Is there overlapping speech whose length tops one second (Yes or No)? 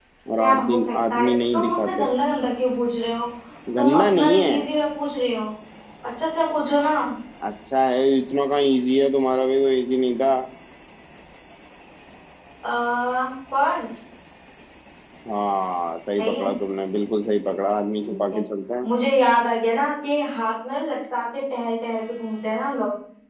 Yes